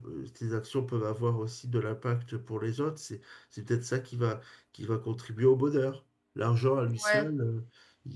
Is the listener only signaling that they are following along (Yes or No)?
Yes